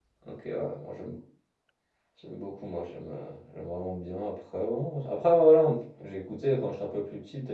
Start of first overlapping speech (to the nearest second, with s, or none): none